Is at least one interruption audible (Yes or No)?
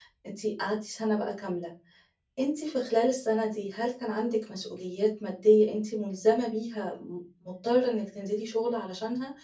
No